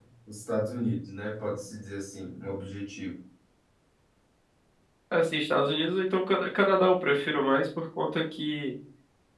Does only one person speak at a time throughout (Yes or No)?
Yes